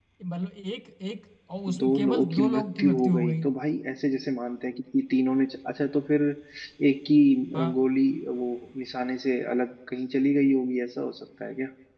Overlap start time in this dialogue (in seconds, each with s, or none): 1.7 s